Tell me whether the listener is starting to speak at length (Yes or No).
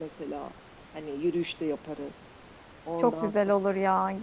Yes